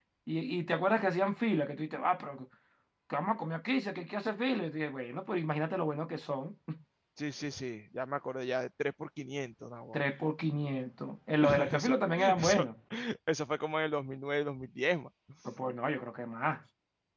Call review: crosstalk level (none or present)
present